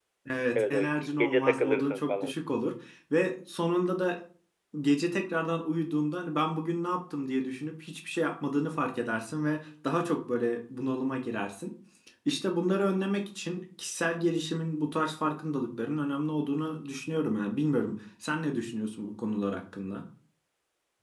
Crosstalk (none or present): present